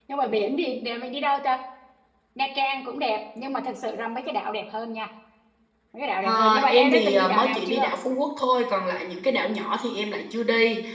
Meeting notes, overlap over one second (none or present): present